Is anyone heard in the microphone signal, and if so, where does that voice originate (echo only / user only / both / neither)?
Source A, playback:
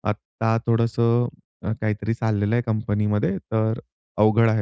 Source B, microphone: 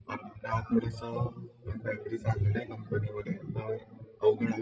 echo only